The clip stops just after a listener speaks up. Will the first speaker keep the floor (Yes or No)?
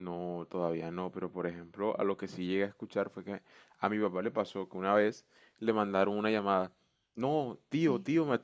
Yes